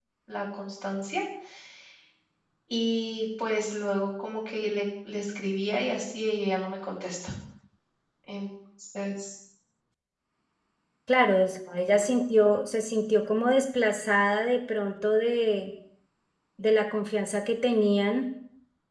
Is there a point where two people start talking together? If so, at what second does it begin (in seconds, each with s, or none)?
none